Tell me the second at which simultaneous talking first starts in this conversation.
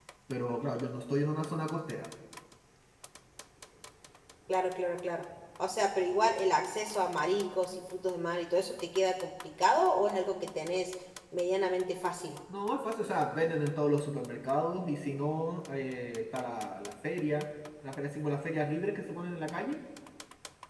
none

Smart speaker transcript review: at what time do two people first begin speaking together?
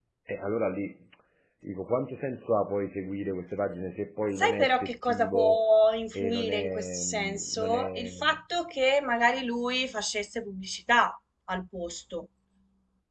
4.4 s

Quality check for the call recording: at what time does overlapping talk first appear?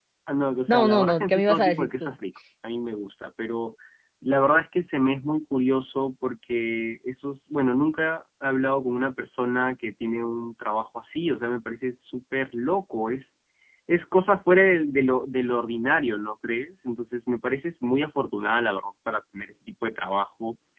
0.7 s

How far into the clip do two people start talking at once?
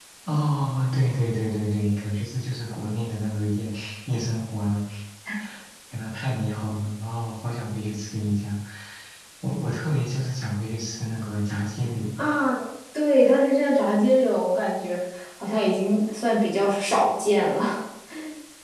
none

